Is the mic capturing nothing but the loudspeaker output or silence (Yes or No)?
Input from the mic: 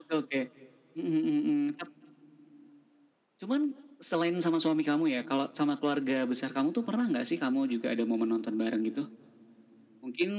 Yes